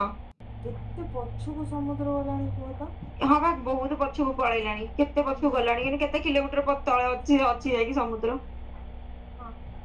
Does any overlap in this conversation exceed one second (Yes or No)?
No